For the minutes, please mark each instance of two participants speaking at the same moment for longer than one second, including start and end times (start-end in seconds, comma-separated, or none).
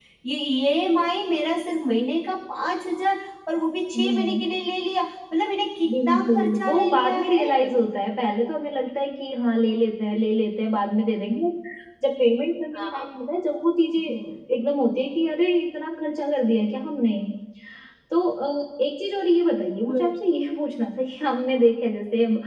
6.0-7.7